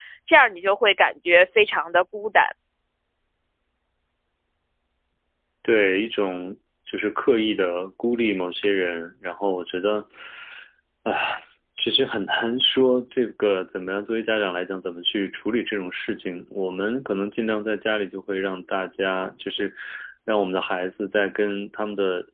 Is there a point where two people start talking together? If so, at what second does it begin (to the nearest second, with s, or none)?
none